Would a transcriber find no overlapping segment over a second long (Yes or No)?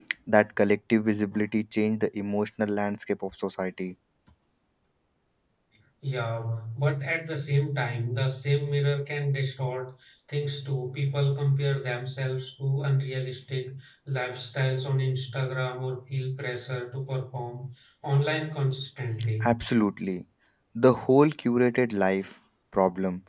Yes